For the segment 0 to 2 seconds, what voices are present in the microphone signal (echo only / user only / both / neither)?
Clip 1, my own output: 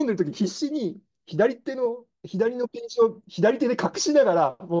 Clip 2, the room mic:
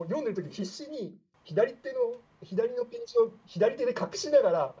echo only